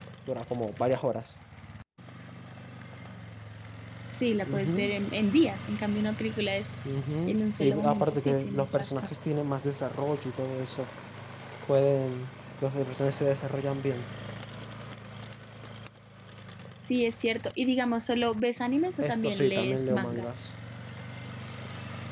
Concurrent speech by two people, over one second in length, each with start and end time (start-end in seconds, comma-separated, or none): 7.3-8.9, 19.0-20.3